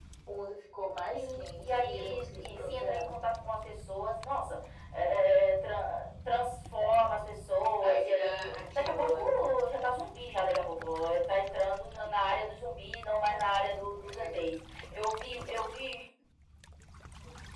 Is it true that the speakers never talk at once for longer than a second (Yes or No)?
No